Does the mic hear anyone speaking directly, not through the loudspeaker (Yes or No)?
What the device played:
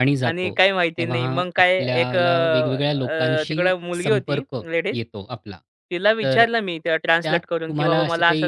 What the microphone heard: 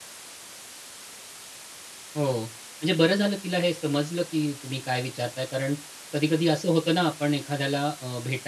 Yes